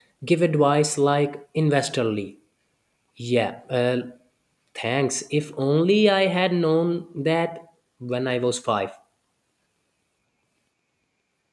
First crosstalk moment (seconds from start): none

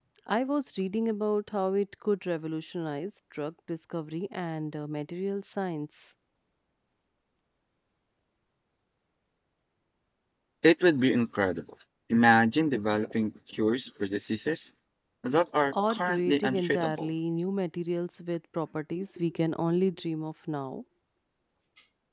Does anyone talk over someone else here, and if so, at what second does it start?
15.7 s

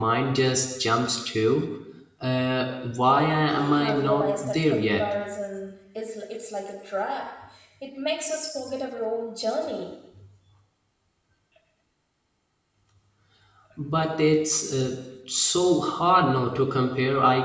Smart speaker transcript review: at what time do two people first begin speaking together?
3.5 s

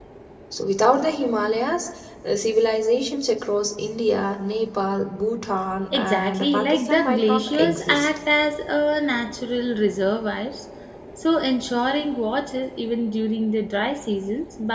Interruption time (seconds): 5.9 s

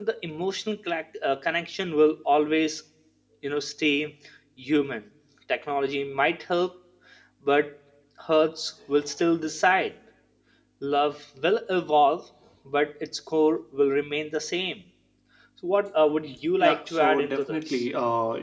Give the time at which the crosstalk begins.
16.6 s

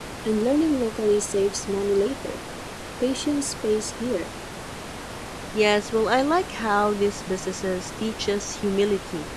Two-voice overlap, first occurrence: none

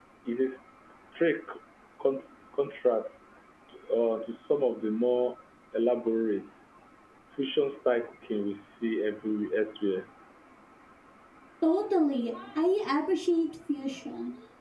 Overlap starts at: none

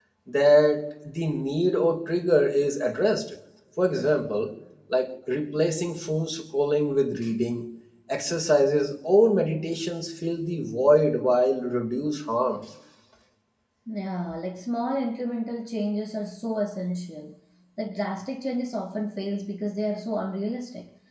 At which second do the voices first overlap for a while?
none

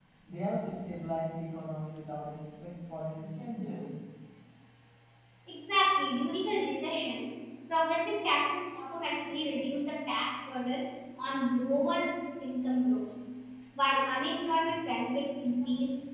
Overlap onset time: none

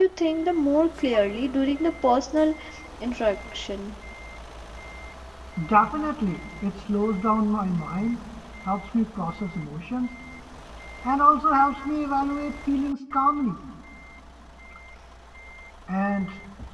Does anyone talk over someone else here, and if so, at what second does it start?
none

